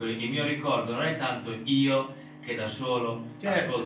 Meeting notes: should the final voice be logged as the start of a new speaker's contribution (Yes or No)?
No